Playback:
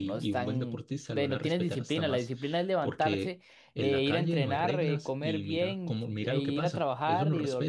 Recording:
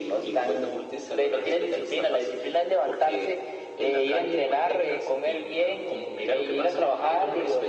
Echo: present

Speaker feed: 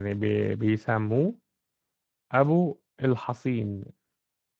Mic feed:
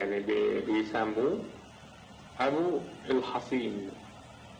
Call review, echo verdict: present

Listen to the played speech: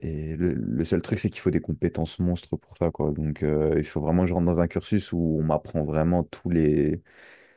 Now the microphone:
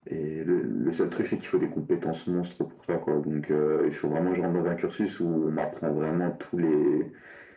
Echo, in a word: present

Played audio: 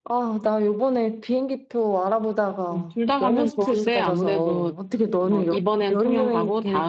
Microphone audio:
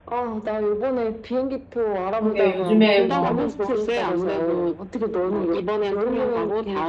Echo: present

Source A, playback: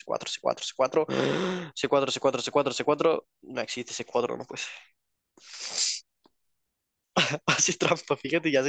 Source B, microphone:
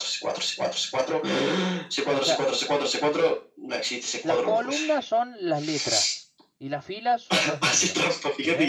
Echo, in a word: present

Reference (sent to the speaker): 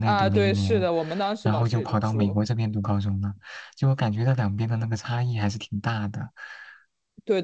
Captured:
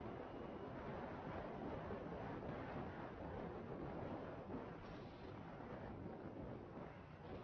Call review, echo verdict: none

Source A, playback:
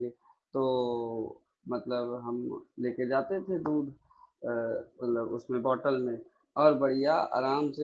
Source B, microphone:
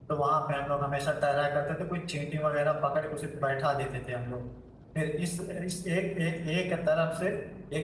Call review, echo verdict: none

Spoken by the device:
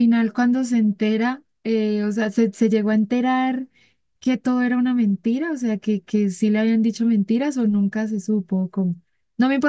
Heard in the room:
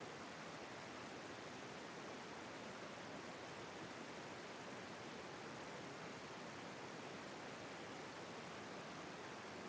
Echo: none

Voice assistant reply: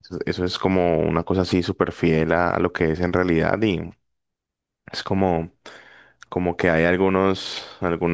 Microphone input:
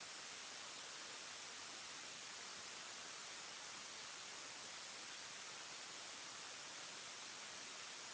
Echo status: none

